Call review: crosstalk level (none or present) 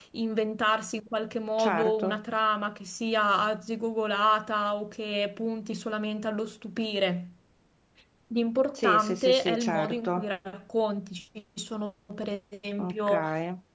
present